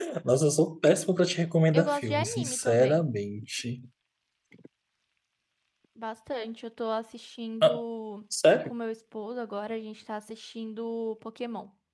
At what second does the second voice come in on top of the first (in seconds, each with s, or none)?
1.7 s